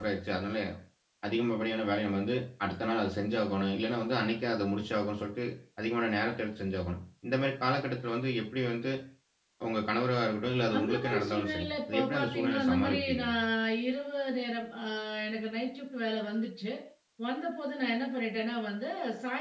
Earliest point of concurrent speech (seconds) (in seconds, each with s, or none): 10.7 s